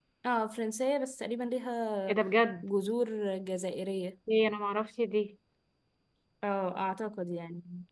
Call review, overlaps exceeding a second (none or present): none